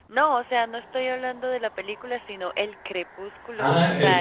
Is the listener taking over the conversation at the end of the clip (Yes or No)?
Yes